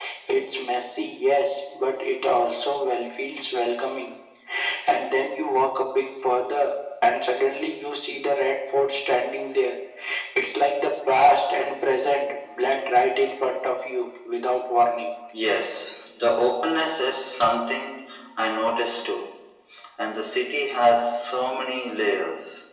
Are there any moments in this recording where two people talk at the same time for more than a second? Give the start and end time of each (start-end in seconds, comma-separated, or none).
none